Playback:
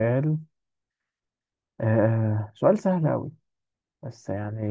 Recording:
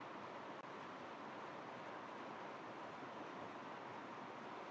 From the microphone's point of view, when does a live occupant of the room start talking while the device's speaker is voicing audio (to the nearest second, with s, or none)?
none